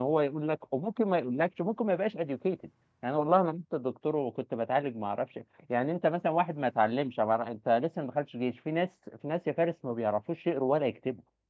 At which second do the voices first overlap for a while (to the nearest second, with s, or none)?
none